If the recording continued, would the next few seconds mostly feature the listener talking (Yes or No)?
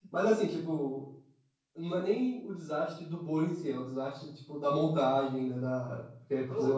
Yes